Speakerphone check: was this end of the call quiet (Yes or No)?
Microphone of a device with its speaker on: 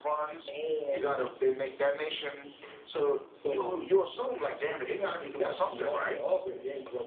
Yes